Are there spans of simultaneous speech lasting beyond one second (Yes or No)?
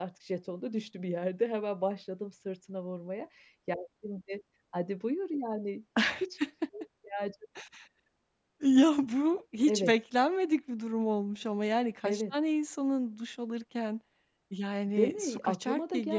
Yes